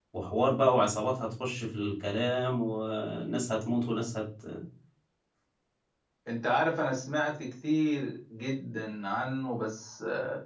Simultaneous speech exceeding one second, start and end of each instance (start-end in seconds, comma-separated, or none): none